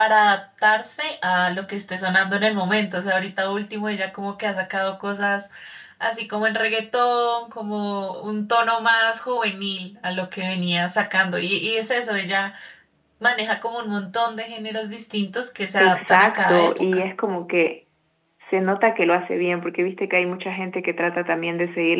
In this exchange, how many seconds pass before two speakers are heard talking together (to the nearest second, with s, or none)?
16 s